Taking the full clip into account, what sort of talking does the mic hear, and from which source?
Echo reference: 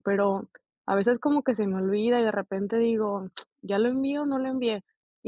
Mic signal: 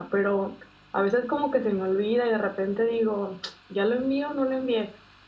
echo only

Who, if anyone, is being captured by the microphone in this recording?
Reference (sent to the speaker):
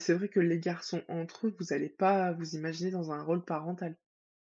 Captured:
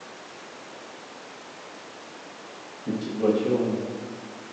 user only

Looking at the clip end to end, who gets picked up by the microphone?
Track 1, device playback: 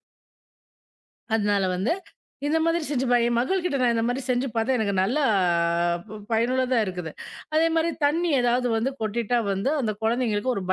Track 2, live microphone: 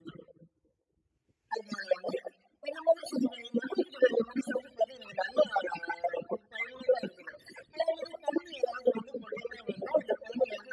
echo only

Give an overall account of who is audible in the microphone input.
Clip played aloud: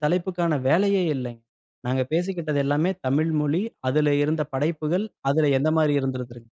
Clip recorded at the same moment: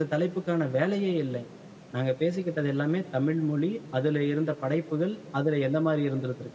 echo only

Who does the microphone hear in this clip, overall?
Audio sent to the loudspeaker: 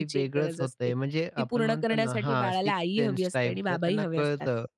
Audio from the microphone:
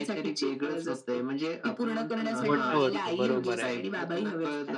both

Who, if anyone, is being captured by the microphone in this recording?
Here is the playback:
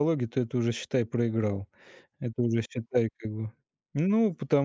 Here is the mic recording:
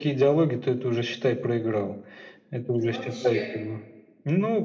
both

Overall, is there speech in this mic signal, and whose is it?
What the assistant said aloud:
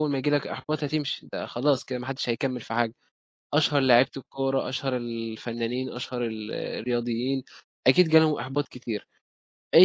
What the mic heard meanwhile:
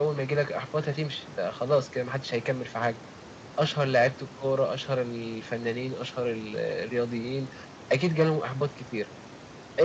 echo only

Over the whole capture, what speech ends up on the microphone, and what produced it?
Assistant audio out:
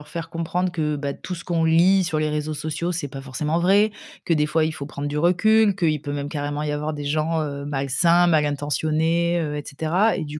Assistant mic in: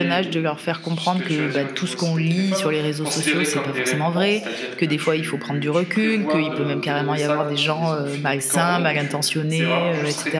both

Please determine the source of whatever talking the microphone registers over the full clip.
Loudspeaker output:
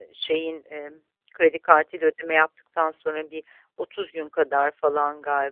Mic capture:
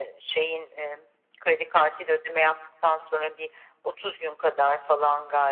echo only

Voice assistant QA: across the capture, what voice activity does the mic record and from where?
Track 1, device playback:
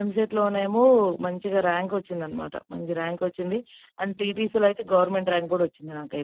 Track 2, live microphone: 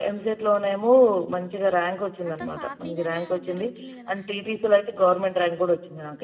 both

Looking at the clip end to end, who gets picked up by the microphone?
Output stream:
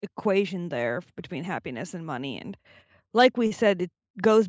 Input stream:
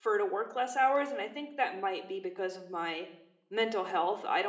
user only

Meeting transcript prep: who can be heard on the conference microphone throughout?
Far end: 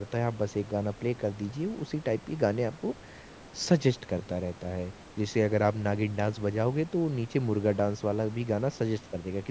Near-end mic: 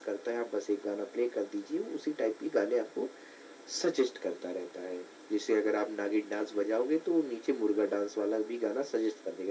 echo only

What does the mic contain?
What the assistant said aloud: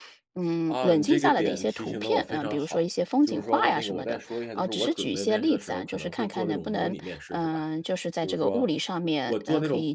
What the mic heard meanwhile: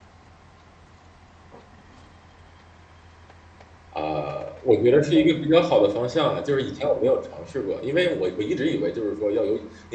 user only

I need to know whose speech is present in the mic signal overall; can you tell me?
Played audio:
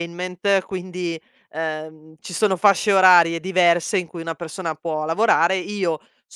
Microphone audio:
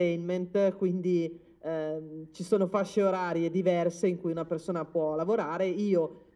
echo only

